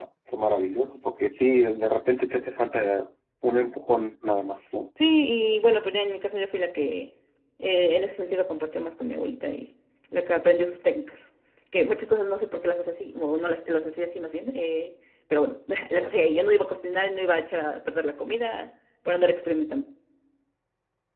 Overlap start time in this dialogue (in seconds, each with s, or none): none